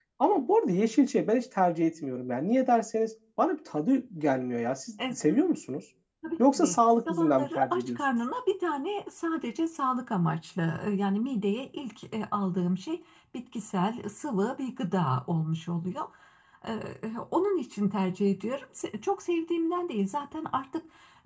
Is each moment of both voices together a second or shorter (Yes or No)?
No